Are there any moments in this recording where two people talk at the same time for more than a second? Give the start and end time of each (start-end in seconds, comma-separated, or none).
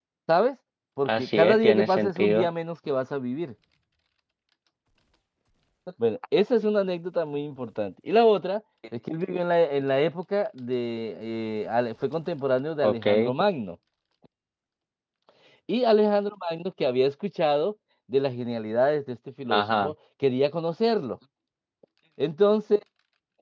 1.1-2.5